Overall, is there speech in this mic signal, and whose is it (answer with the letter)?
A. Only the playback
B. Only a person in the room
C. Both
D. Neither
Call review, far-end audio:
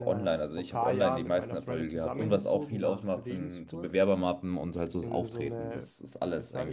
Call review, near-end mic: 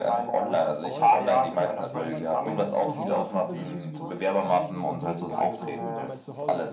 C